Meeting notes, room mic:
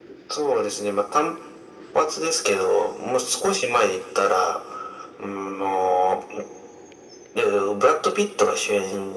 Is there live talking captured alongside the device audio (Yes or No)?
No